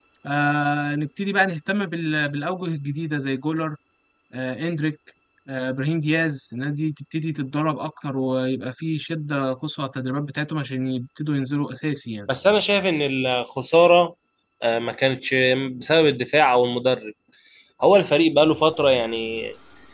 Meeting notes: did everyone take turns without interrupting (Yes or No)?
Yes